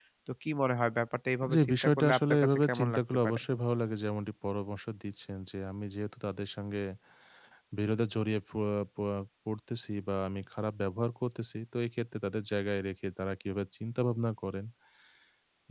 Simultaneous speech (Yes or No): Yes